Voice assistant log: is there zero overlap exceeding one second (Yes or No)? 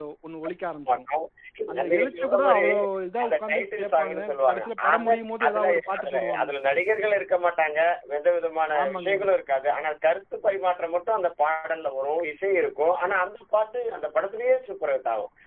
No